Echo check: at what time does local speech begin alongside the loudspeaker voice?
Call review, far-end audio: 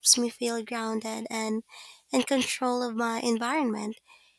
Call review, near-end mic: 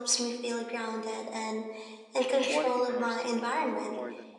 2.4 s

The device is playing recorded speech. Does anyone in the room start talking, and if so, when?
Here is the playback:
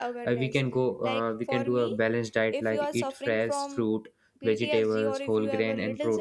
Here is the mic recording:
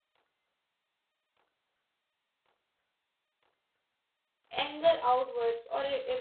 4.5 s

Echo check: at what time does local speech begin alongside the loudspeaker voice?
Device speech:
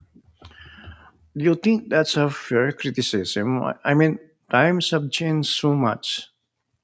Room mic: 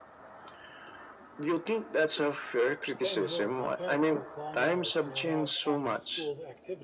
2.9 s

